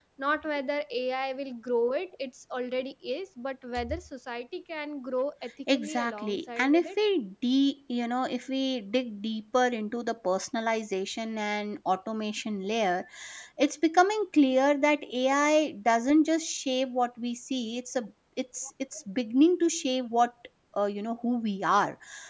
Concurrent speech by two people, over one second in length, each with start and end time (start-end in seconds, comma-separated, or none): 5.7-7.0